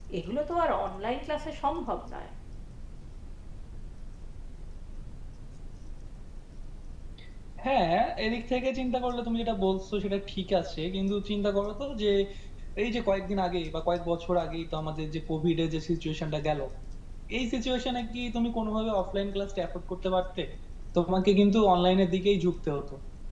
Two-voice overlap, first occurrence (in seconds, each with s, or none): none